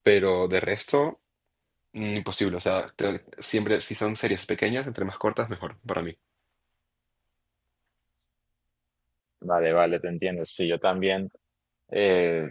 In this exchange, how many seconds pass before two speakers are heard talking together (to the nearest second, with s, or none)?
none